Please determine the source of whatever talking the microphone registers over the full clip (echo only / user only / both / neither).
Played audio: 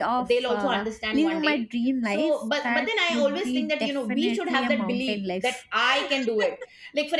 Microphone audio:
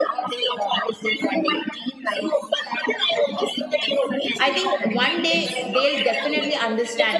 both